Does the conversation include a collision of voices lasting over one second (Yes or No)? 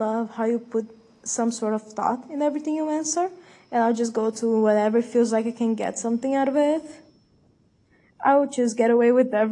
No